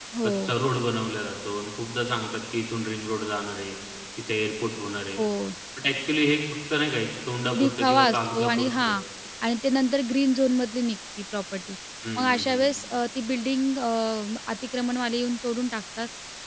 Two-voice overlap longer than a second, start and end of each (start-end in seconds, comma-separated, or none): 7.6-8.9